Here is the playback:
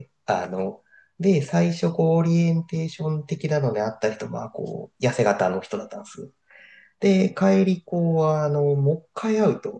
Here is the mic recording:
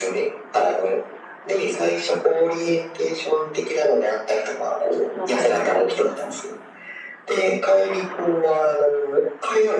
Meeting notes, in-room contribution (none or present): present